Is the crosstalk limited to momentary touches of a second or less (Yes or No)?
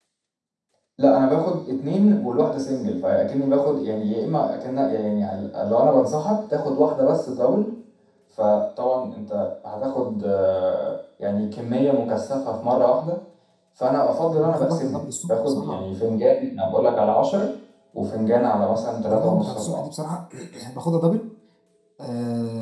No